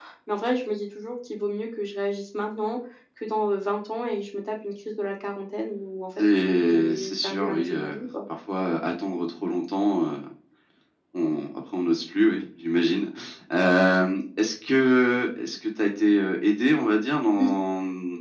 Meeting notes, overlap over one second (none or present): present